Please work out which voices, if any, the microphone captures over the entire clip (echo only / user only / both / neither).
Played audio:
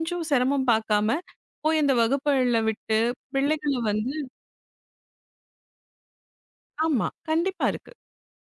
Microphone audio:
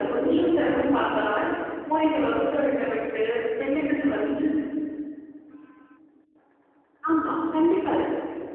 echo only